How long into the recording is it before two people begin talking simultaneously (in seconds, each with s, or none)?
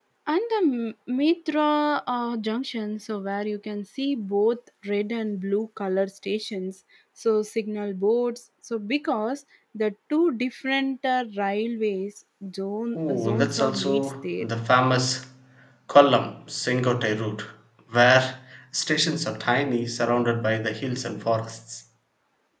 12.9 s